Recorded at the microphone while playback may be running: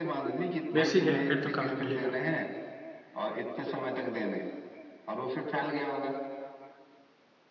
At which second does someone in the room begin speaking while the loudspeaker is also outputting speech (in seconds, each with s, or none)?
0.7 s